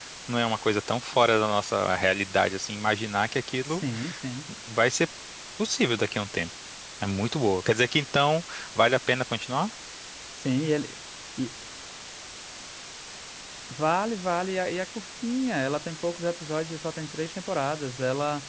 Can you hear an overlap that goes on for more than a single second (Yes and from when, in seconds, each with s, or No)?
No